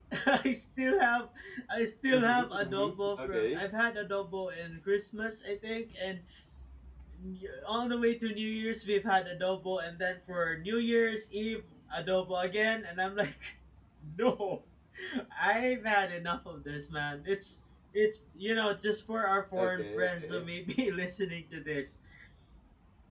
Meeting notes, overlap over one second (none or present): present